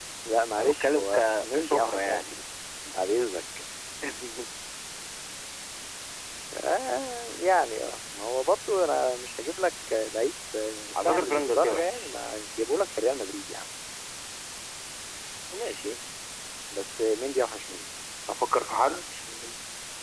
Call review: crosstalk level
present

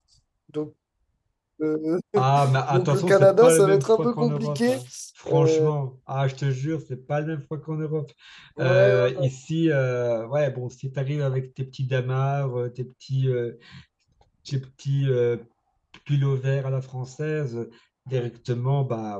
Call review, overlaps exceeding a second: present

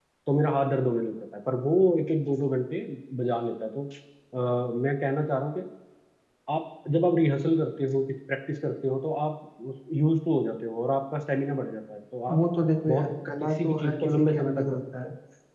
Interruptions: present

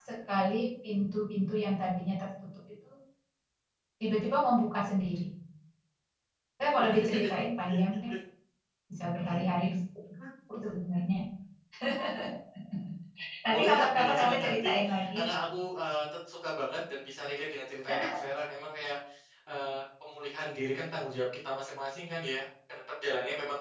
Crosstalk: present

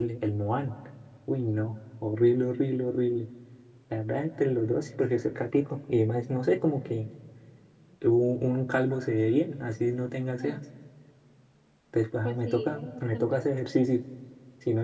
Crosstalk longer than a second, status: present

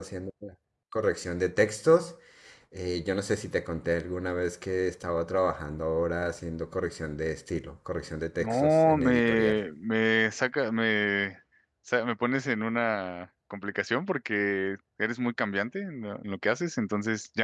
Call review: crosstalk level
present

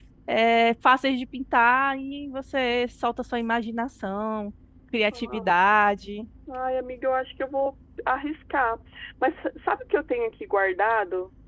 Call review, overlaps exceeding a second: none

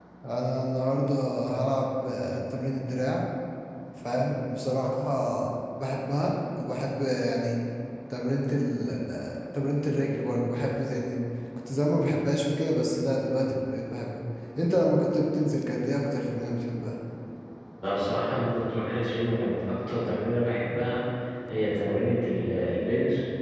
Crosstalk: none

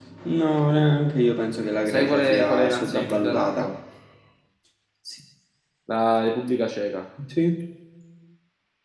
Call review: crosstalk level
present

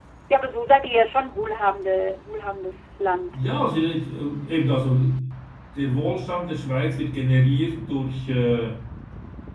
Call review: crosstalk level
none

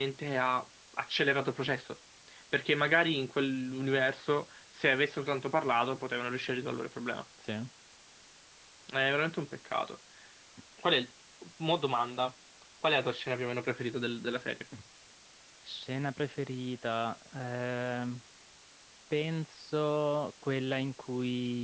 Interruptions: none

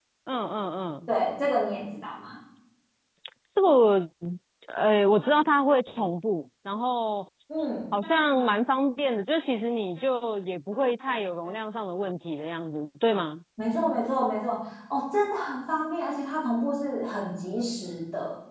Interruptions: none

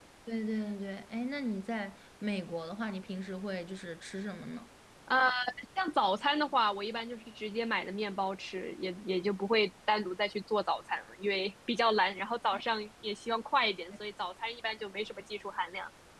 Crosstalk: none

